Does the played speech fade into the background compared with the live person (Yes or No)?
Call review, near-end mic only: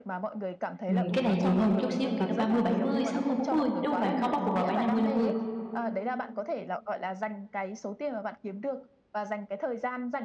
Yes